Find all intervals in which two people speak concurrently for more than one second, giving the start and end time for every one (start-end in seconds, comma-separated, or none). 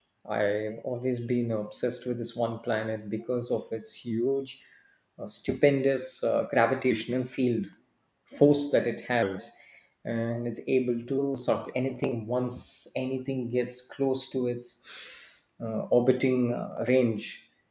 none